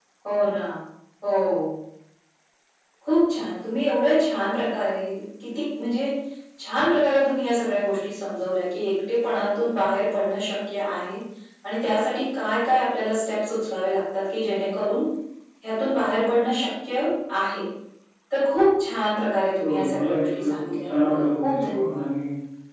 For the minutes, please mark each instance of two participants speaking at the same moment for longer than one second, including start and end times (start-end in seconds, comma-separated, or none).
19.6-22.1